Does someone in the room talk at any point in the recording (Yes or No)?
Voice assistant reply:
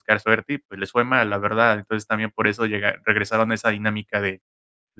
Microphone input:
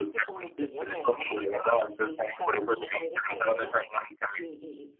Yes